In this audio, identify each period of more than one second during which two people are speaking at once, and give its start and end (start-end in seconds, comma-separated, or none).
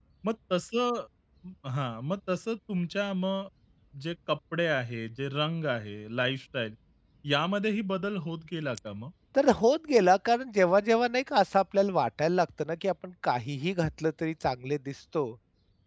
none